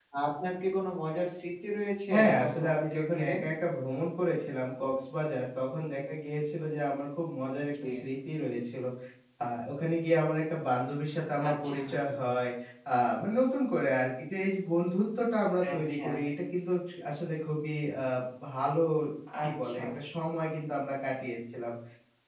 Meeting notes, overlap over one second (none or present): present